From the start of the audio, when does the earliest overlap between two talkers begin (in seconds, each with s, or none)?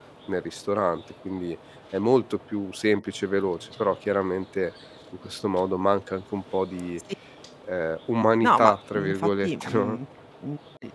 8.4 s